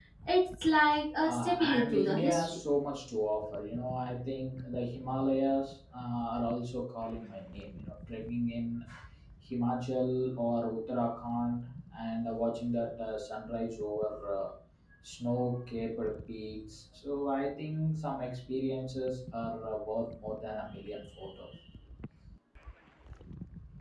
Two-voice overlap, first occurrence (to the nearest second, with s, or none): 1 s